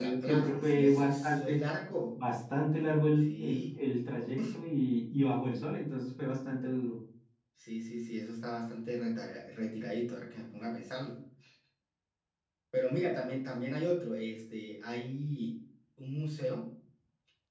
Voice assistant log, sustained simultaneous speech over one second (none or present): present